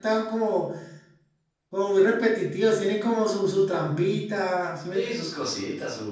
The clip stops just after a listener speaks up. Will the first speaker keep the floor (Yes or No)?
No